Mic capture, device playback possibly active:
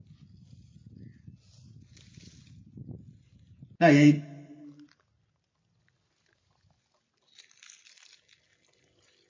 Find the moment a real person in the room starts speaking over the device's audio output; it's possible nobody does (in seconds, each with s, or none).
3.8 s